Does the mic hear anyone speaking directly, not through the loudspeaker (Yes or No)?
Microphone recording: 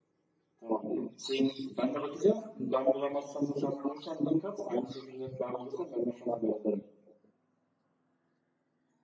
No